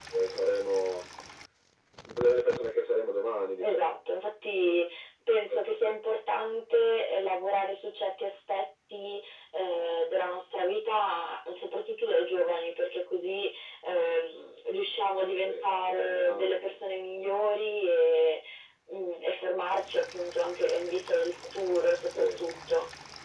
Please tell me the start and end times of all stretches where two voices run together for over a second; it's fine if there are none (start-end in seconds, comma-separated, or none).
15.4-16.8